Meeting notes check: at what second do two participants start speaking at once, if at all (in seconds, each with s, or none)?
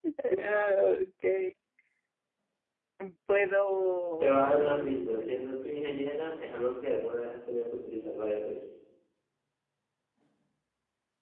4.2 s